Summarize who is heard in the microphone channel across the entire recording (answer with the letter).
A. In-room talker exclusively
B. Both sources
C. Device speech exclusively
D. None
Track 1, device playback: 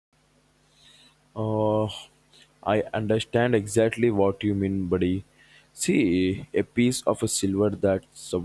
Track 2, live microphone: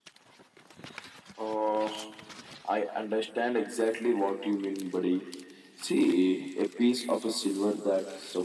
C